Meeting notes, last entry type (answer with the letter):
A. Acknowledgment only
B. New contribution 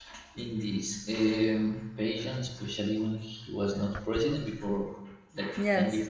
B